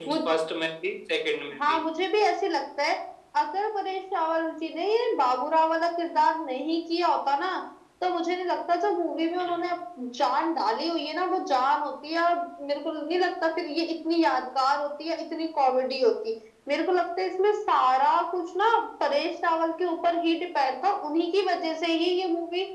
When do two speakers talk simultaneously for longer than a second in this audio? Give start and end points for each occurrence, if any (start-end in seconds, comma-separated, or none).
none